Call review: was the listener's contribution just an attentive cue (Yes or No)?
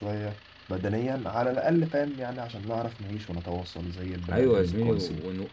No